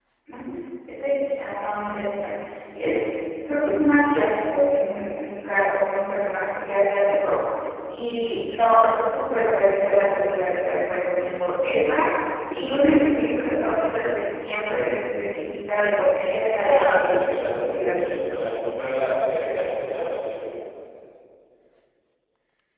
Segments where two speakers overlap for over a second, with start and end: 16.7-18.4

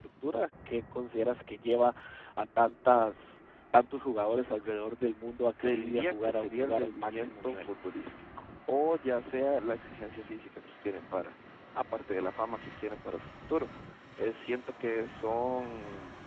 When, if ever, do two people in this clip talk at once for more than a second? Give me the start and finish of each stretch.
5.6-7.7

